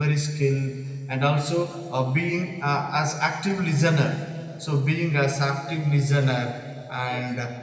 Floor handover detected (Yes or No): No